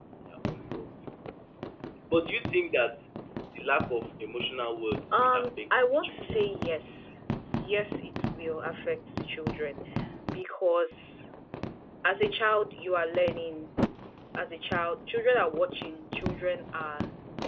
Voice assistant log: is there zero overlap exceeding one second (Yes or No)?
No